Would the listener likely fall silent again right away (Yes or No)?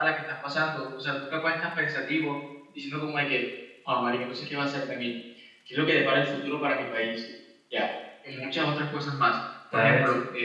Yes